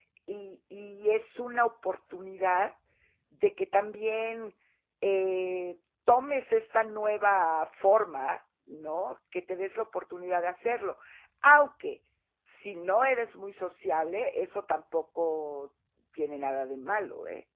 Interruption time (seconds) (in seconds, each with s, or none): none